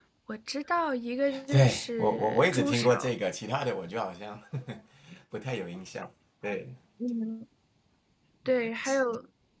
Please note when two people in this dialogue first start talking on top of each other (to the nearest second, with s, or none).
1 s